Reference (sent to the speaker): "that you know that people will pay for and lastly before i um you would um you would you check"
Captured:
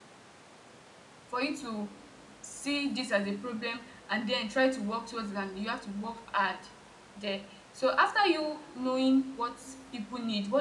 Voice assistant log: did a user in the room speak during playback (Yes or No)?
Yes